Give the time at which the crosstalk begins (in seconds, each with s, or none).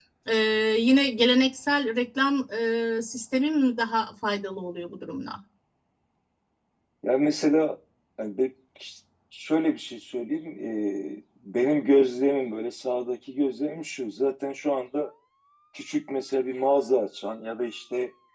none